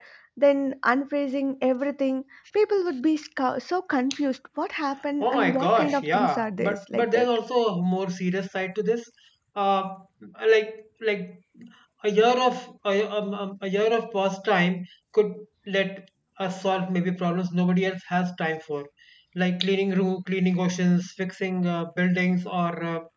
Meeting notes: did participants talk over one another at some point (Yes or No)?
Yes